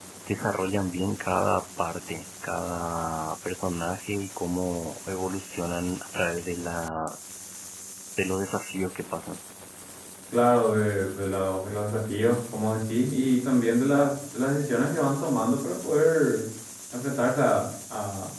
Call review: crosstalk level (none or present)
none